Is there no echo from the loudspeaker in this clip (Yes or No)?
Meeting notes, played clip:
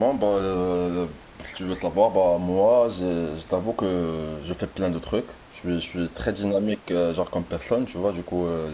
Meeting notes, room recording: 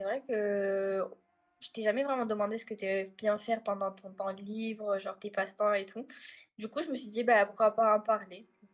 Yes